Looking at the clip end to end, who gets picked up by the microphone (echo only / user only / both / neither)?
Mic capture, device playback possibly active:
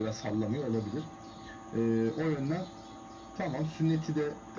echo only